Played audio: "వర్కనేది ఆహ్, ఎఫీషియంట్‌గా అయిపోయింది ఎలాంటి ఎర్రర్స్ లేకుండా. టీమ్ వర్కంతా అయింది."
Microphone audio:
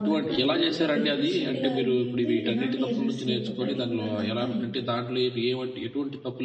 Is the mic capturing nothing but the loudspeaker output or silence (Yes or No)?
No